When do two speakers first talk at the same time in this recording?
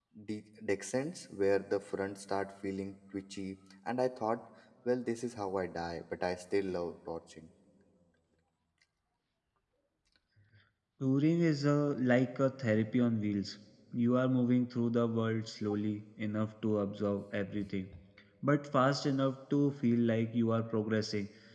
none

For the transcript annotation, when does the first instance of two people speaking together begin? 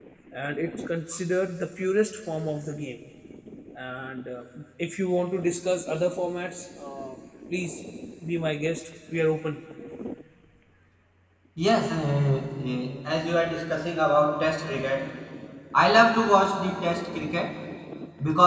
none

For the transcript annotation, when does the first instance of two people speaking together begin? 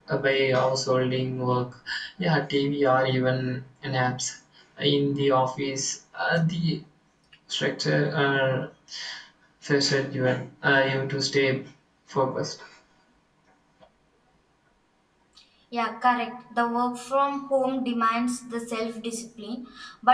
none

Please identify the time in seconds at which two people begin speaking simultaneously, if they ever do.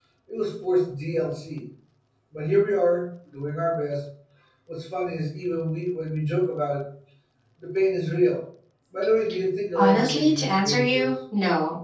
9.8 s

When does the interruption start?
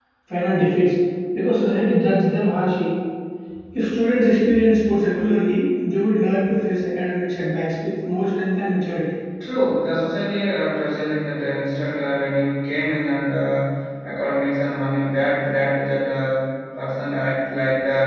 none

